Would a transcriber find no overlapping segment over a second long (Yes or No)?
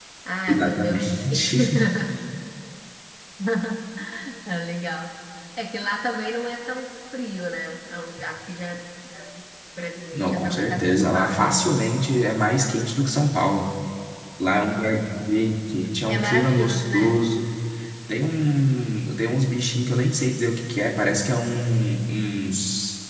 No